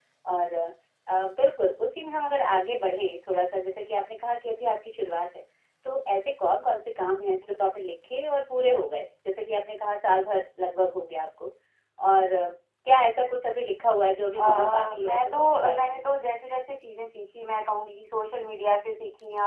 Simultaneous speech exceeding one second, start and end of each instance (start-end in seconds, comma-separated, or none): 14.4-16.4